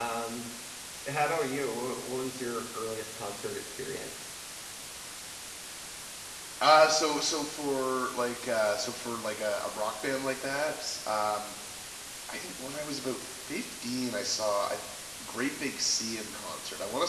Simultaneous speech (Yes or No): No